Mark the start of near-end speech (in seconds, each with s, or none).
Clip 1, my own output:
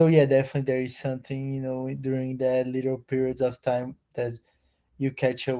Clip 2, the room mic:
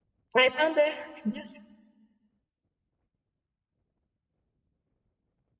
0.3 s